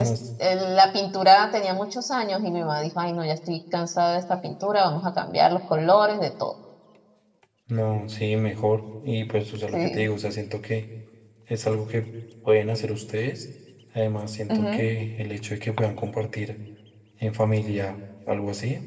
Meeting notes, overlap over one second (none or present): none